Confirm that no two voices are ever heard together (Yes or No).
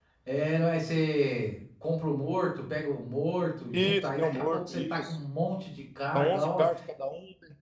No